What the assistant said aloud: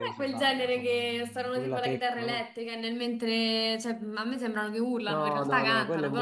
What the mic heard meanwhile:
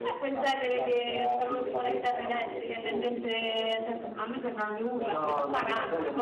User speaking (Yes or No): Yes